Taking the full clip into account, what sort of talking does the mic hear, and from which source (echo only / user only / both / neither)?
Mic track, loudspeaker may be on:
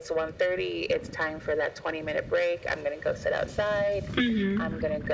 both